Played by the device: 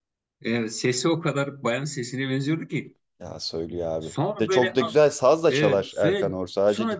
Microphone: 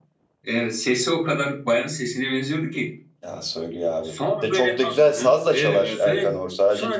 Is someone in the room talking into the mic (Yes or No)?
Yes